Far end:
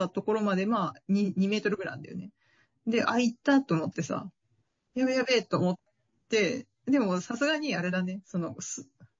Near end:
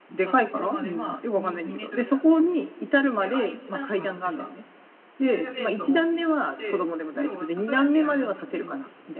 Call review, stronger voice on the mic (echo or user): user